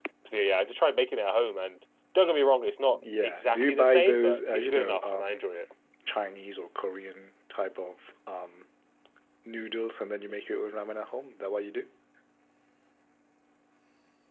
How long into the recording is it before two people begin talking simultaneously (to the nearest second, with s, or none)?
3 s